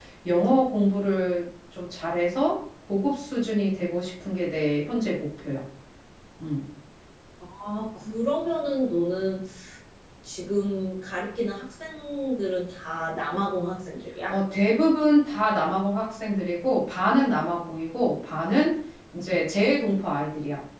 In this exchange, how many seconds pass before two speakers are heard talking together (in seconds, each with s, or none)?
none